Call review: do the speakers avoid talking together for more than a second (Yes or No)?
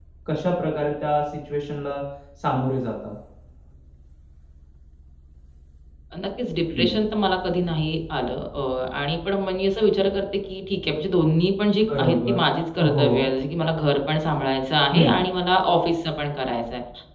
Yes